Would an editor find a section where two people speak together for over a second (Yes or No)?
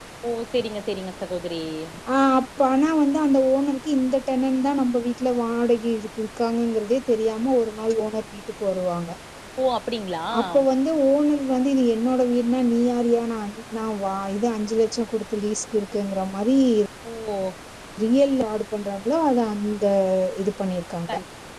No